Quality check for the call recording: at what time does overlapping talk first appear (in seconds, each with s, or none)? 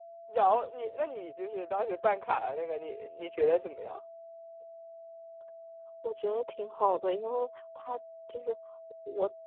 none